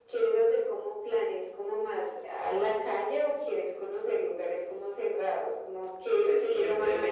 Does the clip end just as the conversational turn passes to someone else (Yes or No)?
Yes